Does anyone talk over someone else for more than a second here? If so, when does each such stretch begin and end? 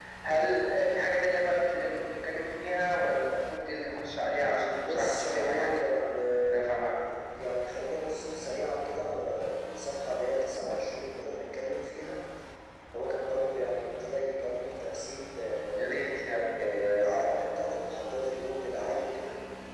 4.5-5.9

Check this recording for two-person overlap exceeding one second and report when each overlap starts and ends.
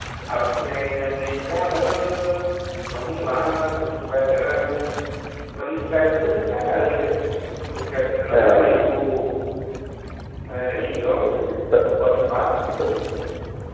none

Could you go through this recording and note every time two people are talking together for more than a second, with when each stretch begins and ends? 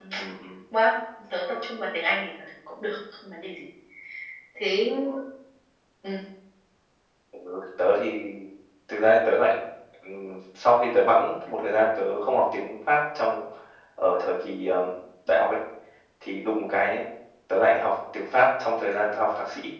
none

